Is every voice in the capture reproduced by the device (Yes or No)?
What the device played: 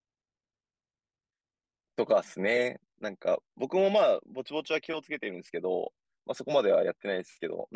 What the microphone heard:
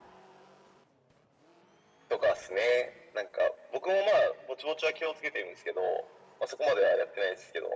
Yes